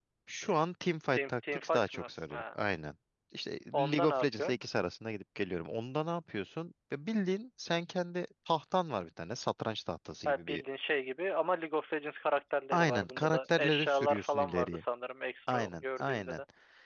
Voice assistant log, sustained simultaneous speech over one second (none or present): present